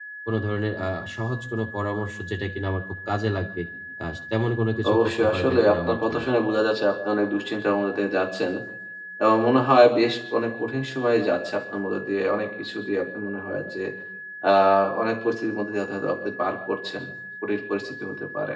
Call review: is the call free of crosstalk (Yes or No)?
No